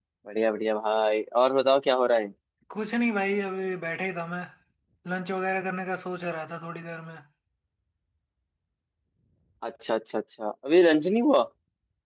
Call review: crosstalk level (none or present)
none